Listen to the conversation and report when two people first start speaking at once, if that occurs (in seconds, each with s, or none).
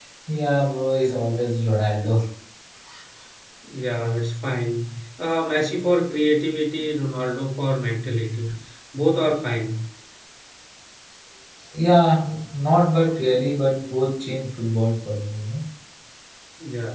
none